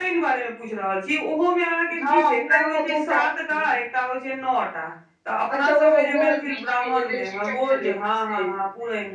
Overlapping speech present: Yes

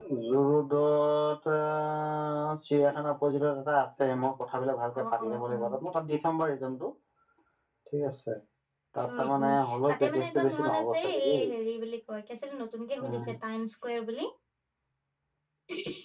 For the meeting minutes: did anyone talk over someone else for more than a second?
Yes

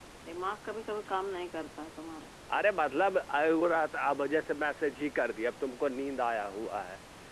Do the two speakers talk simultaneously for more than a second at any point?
No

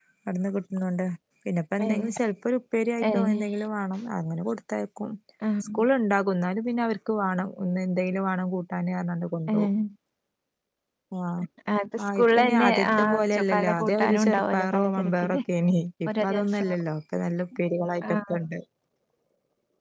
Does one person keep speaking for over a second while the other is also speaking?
Yes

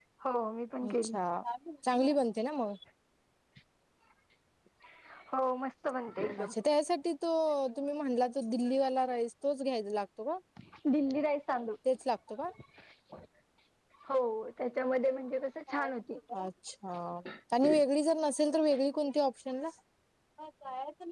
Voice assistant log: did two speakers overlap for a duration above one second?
No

